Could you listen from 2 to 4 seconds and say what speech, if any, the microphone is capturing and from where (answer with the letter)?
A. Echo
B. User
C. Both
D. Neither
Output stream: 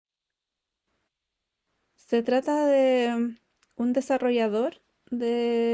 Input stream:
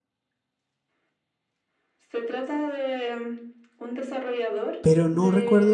A